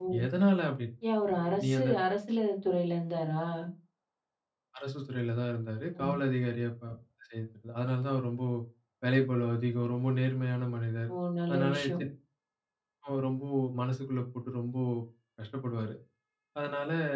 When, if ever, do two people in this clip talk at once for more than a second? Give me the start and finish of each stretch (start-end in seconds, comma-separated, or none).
none